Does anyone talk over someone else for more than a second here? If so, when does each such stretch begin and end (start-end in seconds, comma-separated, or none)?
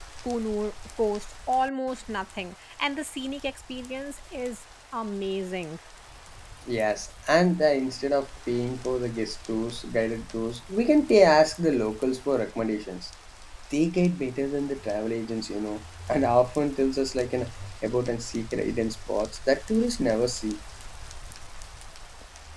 none